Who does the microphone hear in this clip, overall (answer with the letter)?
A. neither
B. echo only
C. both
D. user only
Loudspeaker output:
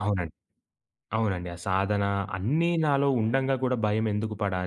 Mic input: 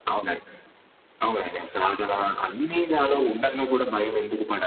B